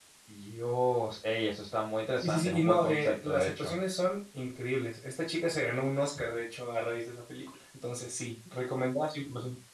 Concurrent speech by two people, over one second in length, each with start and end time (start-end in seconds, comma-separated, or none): 2.2-3.7